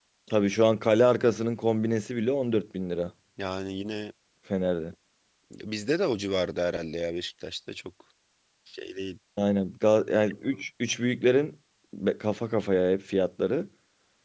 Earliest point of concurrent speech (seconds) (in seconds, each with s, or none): none